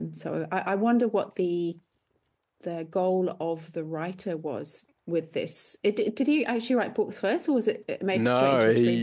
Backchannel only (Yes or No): No